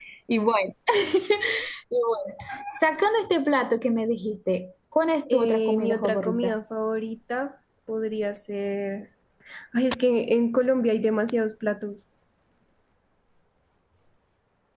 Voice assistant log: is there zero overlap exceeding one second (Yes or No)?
No